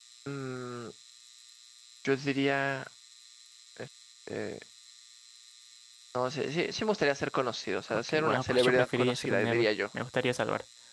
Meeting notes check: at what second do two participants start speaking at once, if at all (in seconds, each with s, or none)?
7.9 s